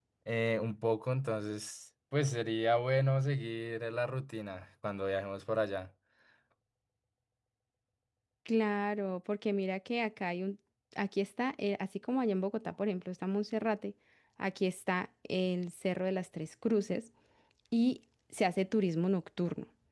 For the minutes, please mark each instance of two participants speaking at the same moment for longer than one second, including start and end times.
none

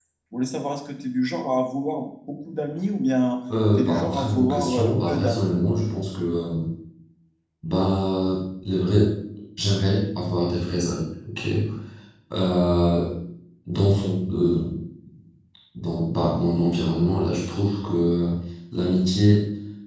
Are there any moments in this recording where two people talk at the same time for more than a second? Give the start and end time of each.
3.8-5.5

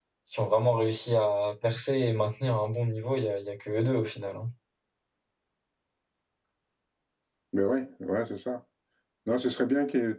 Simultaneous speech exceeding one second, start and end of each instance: none

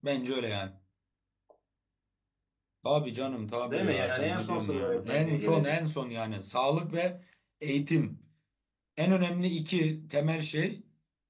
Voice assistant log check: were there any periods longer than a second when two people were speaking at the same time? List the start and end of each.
3.6-5.7

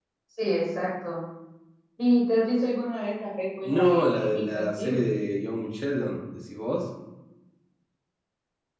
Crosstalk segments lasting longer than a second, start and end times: 3.6-5.1

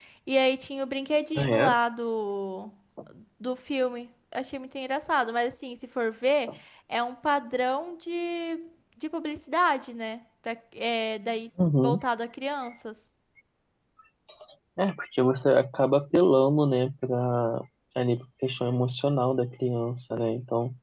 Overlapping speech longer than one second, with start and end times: none

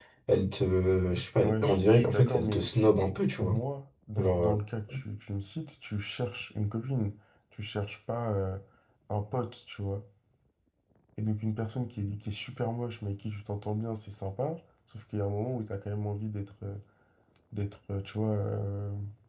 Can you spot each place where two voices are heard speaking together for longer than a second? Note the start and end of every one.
1.4-2.7

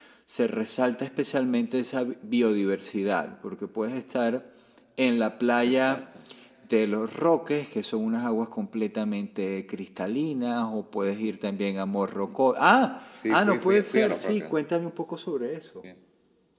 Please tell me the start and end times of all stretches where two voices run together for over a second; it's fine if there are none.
13.3-14.5

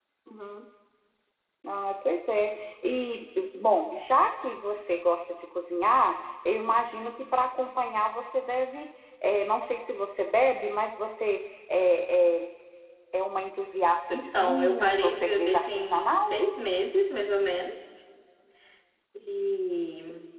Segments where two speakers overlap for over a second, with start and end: 14.1-16.3

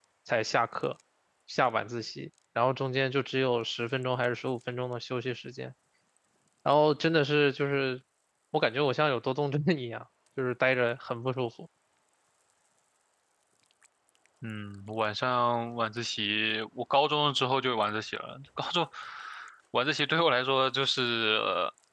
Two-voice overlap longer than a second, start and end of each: none

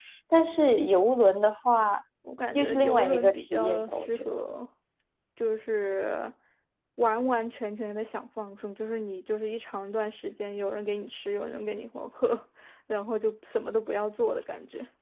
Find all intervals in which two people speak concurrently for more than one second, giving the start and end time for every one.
2.5-4.3

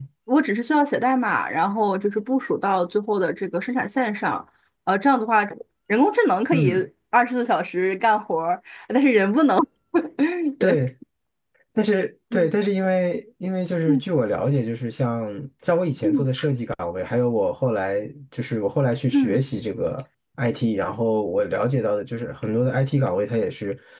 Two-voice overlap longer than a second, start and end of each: none

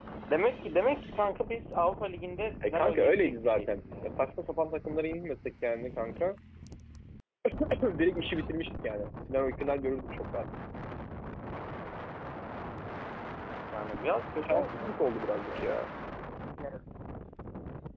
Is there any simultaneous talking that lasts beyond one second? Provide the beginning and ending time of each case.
2.7-4.2, 14.4-15.8

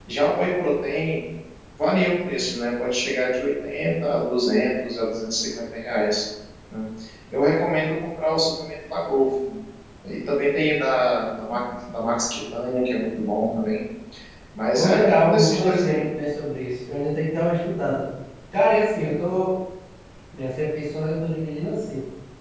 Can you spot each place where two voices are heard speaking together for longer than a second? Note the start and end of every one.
14.8-16.0

